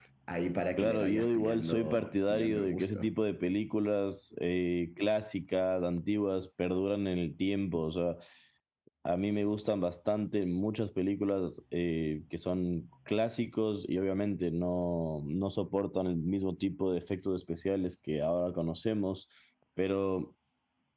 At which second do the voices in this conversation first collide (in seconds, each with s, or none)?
0.8 s